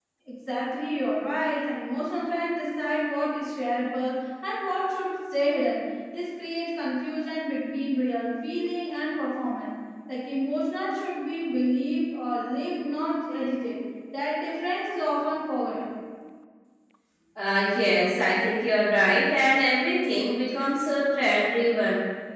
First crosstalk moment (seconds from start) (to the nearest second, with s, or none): none